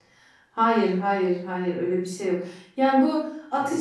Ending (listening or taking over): listening